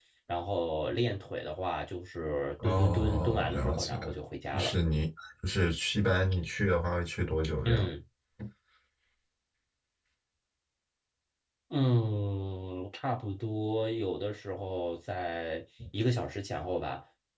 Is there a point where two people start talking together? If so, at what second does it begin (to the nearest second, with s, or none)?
3 s